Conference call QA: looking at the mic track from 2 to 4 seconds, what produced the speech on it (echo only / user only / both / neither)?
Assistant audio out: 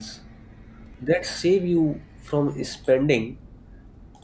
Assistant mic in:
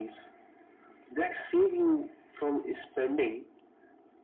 echo only